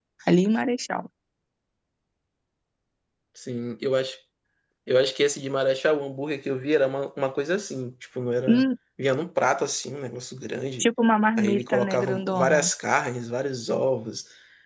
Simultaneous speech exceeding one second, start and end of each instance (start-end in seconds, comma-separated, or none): 11.4-12.7